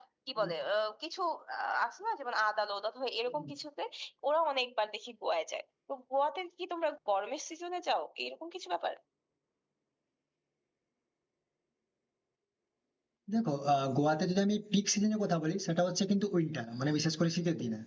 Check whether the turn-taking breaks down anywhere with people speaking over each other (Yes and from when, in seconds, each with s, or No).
No